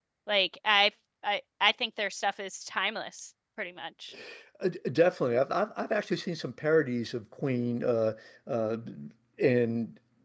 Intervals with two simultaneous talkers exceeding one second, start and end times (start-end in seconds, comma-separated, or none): none